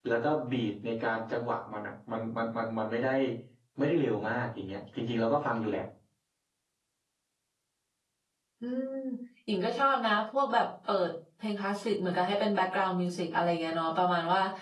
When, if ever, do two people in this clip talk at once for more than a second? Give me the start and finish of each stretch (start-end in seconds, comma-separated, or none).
none